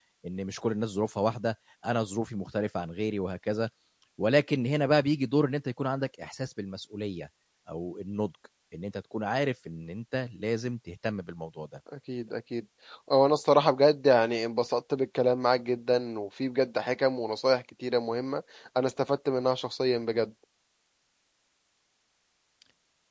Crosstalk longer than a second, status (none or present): none